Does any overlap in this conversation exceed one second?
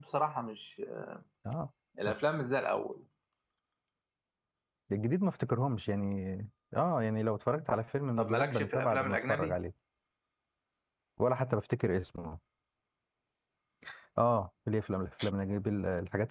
Yes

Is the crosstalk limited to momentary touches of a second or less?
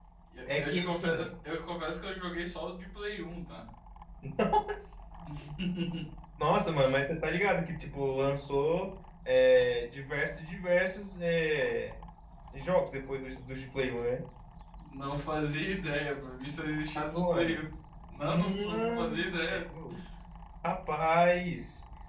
No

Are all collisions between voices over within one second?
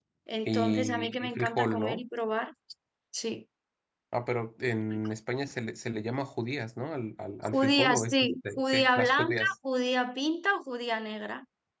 No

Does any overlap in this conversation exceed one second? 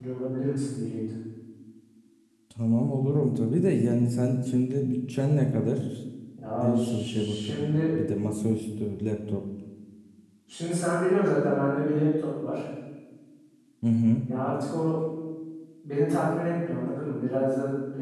Yes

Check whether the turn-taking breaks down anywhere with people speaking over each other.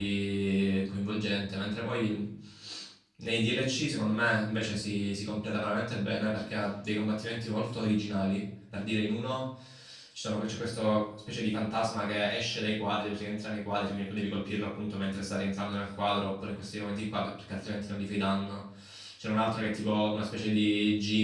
No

